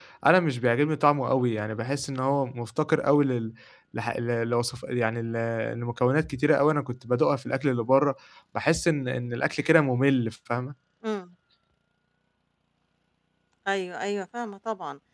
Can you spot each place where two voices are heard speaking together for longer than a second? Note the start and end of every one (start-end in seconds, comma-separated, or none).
none